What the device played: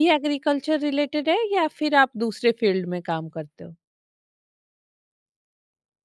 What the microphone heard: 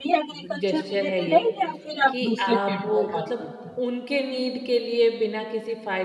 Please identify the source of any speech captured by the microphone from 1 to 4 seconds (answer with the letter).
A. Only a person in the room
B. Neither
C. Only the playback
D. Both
D